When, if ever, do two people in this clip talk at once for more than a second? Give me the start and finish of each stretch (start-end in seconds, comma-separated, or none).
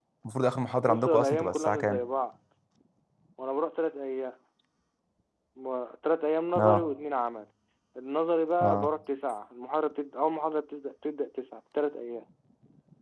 0.8-2.0